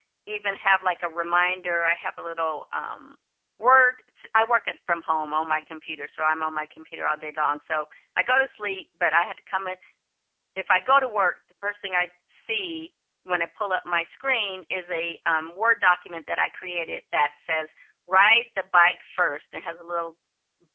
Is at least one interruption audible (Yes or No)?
No